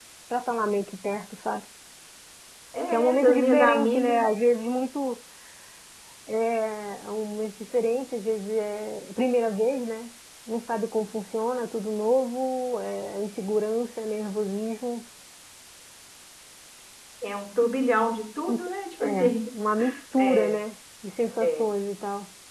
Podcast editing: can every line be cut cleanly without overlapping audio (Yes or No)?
No